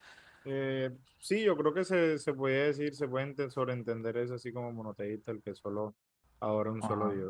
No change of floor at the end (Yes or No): No